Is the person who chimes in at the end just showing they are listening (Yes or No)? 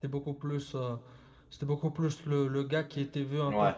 Yes